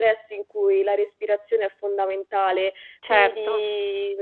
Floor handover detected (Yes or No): No